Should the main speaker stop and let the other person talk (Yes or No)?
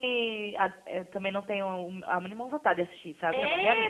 Yes